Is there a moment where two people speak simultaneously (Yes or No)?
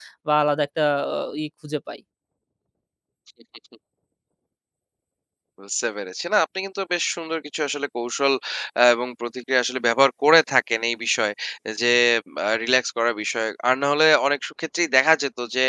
No